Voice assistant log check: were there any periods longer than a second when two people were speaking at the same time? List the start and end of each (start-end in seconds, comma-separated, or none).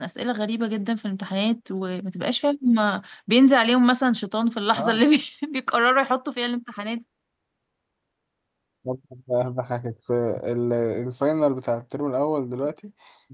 none